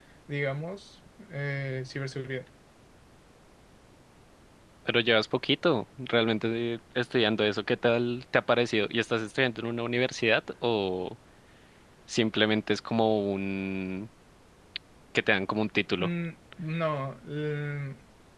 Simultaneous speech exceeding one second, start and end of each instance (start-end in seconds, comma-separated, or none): none